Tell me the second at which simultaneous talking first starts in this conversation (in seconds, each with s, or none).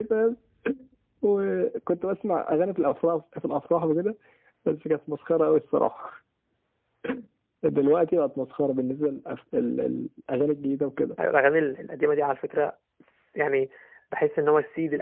none